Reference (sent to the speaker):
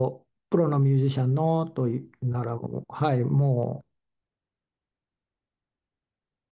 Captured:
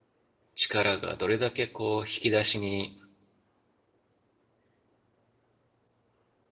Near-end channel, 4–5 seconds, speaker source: neither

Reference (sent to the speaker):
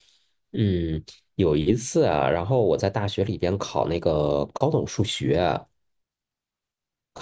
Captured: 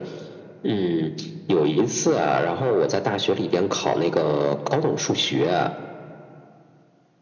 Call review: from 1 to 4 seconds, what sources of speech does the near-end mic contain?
echo only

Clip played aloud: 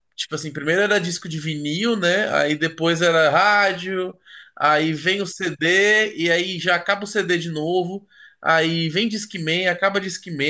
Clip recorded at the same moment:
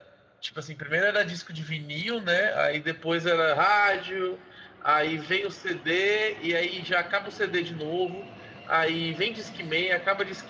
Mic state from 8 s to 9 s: echo only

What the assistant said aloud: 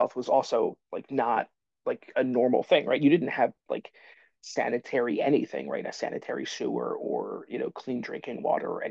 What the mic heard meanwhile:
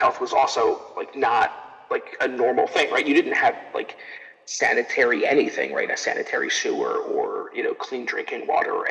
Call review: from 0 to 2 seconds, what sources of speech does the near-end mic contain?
echo only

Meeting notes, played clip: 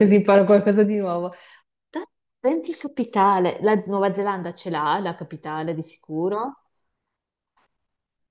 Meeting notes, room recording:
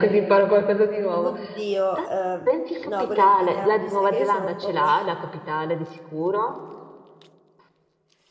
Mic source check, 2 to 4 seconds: both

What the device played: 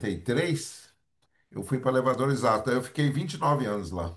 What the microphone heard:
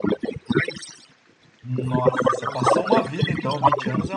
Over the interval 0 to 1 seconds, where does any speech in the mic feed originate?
echo only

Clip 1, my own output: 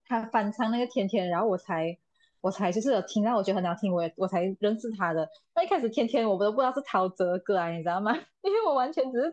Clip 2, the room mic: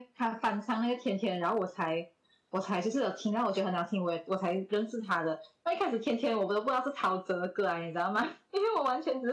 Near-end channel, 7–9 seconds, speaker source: echo only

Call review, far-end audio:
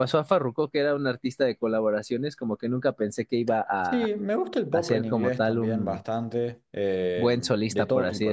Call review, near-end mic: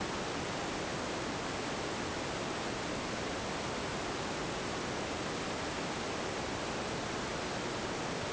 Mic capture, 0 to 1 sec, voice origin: neither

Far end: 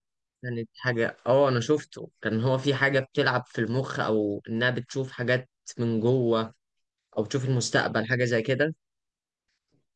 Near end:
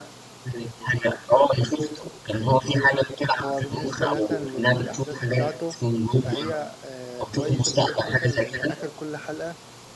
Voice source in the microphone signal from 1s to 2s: echo only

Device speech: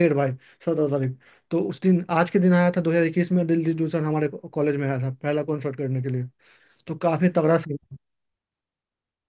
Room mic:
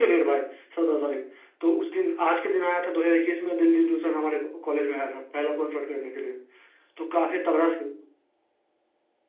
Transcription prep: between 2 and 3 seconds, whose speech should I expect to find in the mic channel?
echo only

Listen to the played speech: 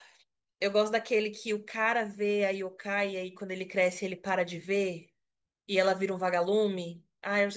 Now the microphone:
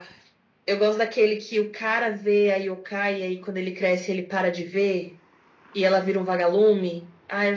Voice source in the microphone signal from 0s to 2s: echo only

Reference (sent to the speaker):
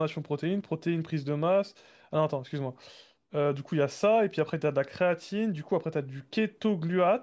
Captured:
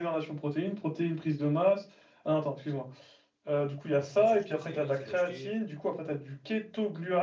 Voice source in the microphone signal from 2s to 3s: echo only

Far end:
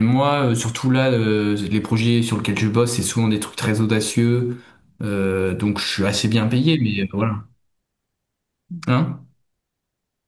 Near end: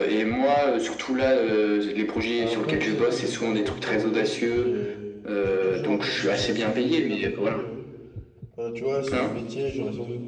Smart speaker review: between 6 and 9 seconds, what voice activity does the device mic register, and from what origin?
both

